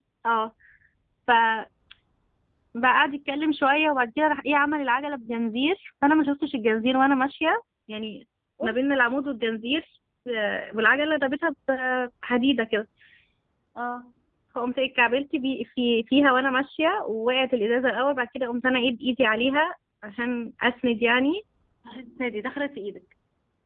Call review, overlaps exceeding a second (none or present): none